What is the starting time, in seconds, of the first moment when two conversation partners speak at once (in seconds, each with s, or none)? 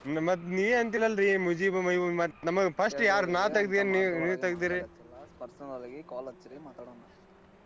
2.9 s